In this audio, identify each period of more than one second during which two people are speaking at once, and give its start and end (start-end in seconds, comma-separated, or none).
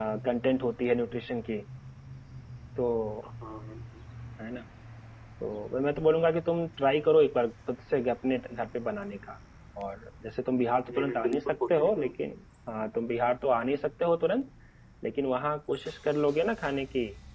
10.9-12.1